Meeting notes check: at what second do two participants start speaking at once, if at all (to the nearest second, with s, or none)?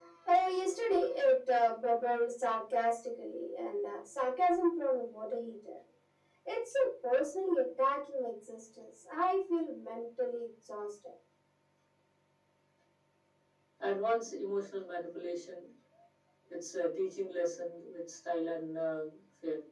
none